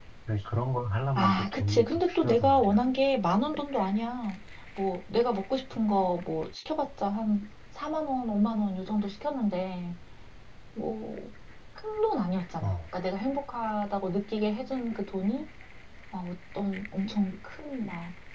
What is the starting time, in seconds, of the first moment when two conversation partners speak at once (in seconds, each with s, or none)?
1.1 s